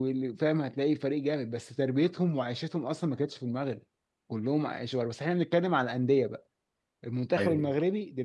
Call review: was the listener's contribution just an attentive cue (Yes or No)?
Yes